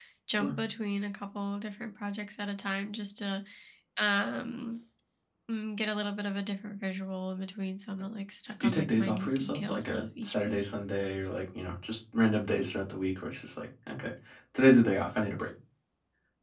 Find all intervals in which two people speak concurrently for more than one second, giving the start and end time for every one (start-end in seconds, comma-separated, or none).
8.6-10.7